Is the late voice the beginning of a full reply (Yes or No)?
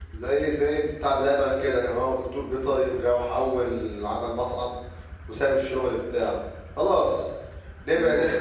No